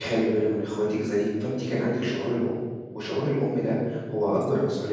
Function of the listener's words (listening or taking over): listening